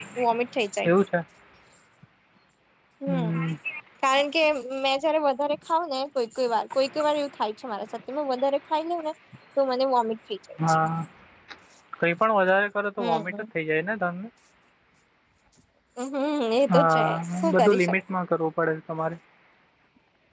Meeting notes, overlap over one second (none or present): present